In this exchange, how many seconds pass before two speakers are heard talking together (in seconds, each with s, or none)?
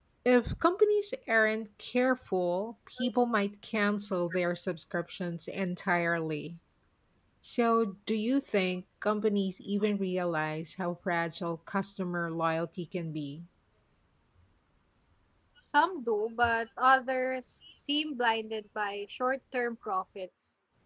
none